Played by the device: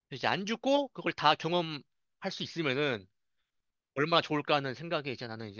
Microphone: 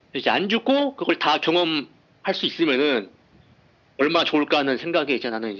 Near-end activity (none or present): none